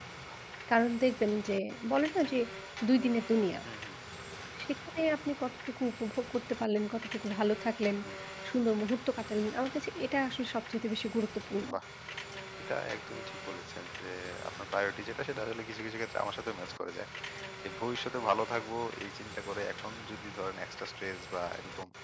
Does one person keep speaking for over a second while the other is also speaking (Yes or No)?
No